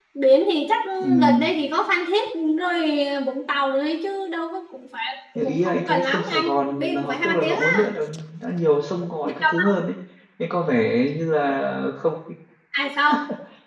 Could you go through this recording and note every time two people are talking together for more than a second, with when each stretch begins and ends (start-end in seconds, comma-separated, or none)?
5.3-7.9